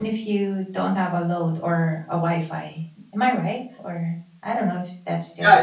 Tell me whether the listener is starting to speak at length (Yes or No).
Yes